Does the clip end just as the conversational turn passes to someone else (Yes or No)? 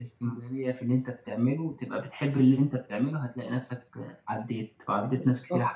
Yes